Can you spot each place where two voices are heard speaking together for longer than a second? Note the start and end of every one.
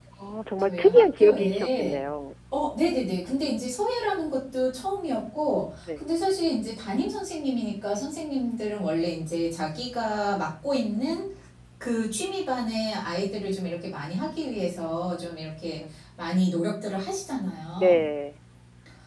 0.6-2.0

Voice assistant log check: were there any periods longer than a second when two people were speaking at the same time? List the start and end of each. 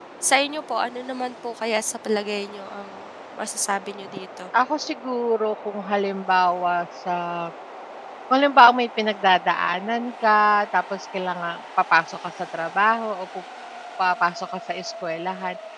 none

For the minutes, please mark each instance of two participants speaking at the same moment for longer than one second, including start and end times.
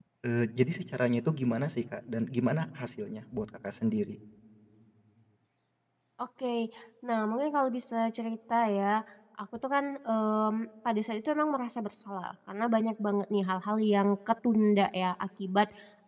none

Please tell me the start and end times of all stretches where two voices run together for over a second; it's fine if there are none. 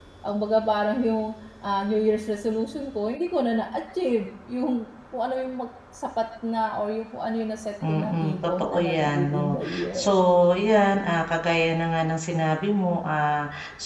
7.9-10.2

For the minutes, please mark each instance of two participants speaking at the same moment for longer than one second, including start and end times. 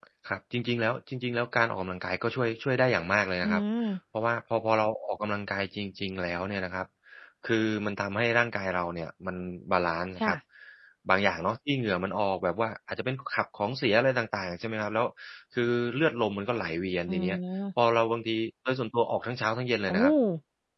none

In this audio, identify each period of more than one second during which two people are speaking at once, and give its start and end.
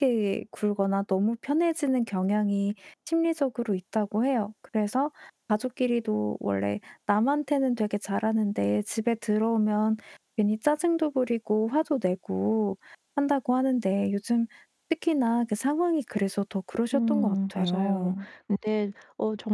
16.9-18.2

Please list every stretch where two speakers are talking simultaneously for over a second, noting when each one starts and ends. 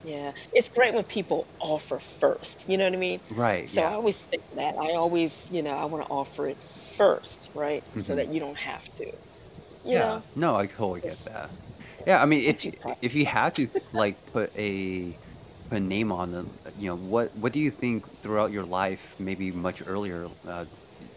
none

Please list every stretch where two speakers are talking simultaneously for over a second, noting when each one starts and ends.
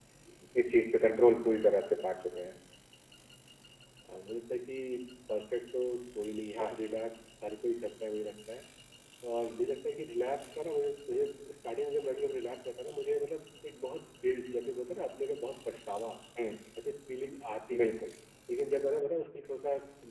none

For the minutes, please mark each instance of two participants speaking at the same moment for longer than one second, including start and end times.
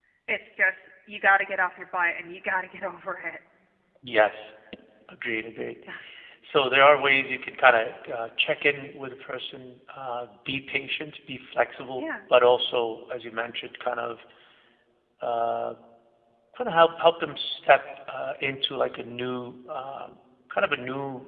none

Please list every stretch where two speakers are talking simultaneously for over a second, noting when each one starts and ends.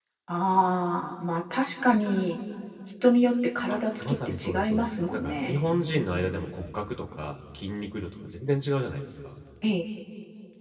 3.7-5.6

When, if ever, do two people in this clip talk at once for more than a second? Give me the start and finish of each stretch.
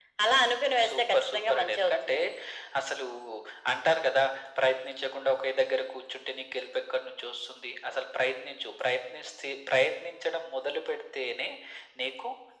0.9-2.2

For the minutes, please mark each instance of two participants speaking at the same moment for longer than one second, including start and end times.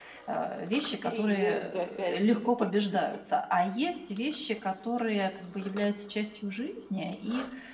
1.0-2.5

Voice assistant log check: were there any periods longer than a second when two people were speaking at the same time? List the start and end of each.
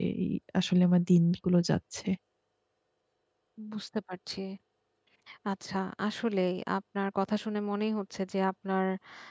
none

